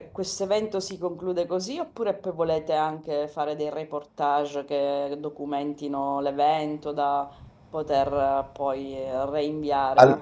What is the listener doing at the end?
listening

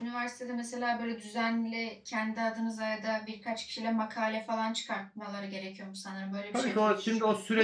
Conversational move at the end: taking over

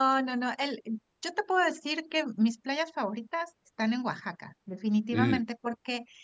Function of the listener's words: listening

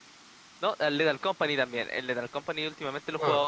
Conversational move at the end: listening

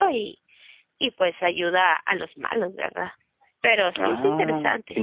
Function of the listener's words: taking over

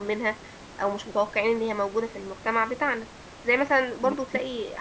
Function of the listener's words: listening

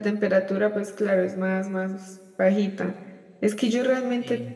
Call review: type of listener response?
listening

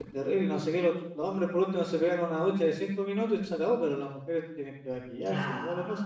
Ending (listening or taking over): taking over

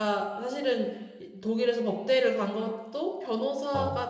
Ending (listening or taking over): listening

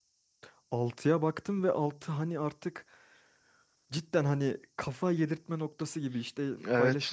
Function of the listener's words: listening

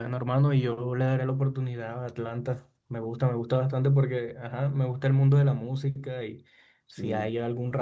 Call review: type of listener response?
listening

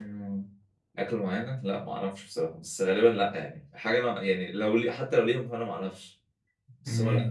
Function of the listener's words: taking over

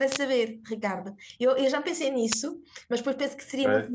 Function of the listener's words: listening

